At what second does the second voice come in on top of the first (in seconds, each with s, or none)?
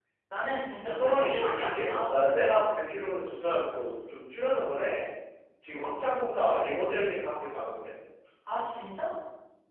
0.8 s